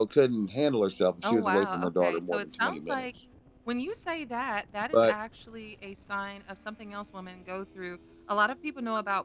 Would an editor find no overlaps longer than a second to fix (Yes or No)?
No